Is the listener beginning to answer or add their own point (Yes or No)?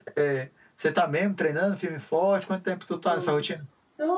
Yes